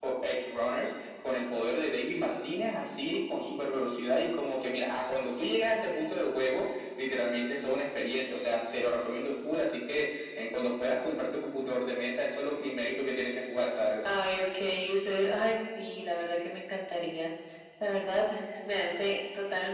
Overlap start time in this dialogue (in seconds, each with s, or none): none